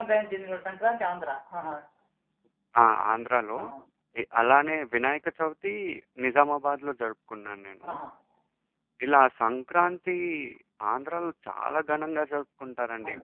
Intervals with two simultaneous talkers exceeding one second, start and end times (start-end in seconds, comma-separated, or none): none